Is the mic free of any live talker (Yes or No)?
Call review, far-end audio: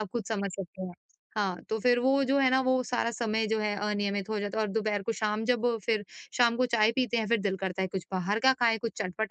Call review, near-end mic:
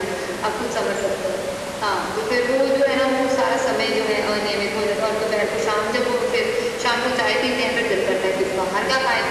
Yes